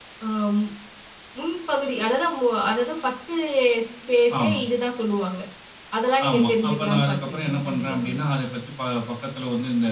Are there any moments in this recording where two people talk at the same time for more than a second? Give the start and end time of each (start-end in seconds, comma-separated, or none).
6.3-8.2